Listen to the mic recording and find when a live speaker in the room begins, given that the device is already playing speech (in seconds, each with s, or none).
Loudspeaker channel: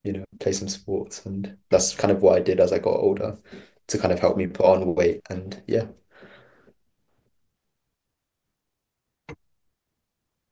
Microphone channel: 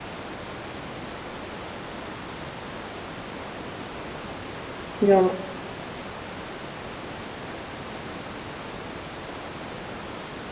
5.0 s